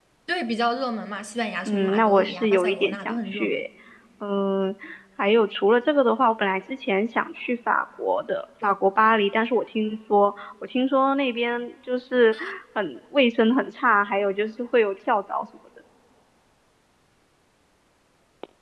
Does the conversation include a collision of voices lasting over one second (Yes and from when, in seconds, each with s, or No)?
Yes, from 1.7 s